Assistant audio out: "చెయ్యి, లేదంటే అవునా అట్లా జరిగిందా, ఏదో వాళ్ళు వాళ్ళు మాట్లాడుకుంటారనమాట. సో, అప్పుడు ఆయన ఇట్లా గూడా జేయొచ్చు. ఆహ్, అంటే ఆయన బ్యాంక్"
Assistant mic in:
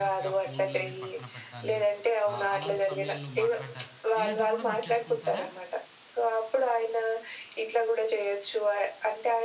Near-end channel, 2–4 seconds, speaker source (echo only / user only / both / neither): both